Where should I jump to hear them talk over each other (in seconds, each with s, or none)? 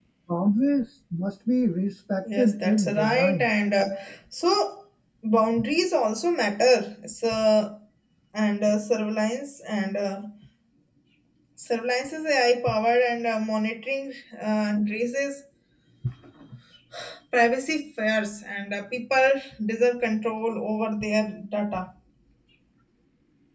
2.2 s